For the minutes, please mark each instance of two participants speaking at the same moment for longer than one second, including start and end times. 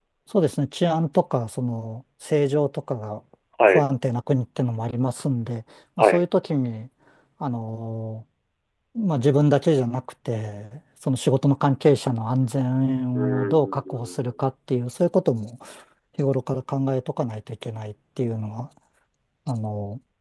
13.2-14.4

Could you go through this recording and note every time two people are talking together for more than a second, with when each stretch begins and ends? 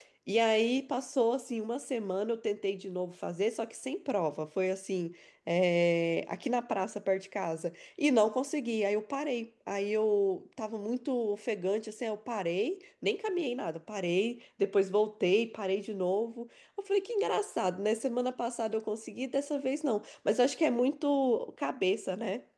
none

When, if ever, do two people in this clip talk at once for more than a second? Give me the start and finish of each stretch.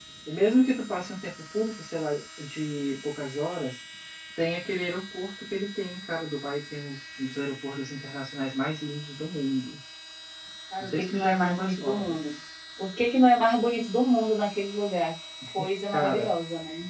10.8-12.2

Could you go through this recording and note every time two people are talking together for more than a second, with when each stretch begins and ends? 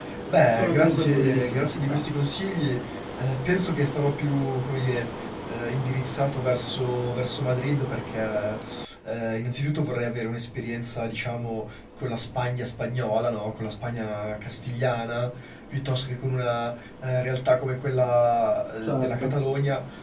0.5-2.0

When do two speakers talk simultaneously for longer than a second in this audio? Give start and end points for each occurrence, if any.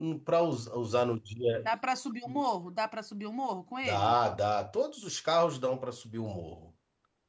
none

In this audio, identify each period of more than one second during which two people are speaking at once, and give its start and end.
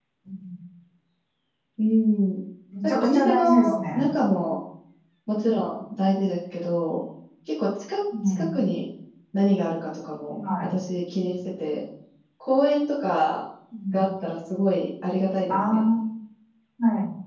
2.8-4.1

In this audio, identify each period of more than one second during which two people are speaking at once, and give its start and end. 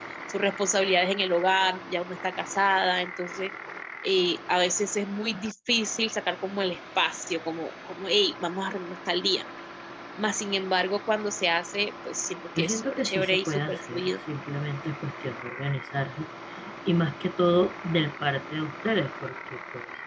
12.6-14.1

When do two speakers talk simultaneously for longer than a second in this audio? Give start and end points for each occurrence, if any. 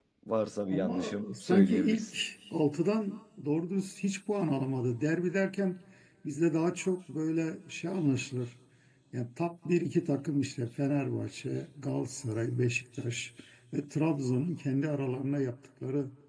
0.7-2.2

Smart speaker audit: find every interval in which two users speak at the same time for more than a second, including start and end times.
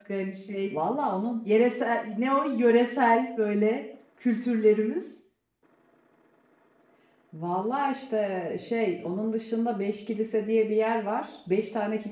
none

